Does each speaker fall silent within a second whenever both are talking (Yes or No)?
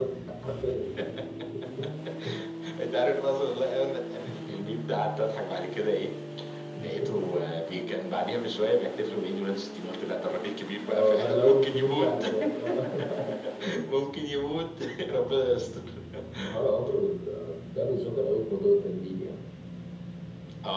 No